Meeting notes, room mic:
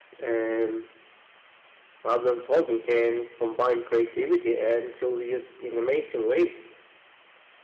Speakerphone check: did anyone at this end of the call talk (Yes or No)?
No